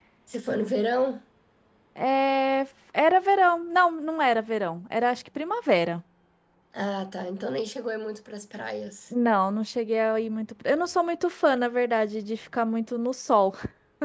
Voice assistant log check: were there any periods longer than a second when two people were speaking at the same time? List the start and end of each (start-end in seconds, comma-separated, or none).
none